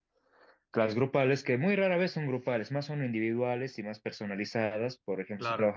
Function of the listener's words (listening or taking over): listening